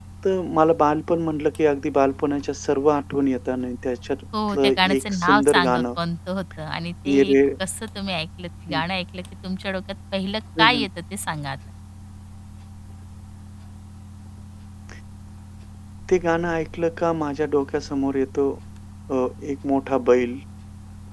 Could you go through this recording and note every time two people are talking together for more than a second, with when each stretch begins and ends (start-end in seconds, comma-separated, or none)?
4.5-5.8